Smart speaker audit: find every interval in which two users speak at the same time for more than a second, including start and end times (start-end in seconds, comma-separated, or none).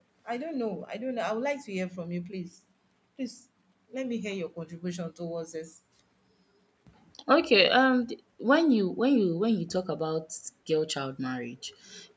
none